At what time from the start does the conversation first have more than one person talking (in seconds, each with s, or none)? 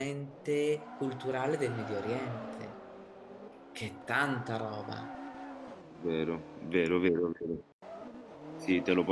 none